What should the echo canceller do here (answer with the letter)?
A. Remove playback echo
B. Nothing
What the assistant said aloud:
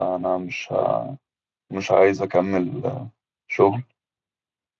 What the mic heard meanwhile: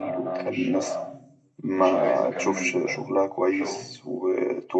A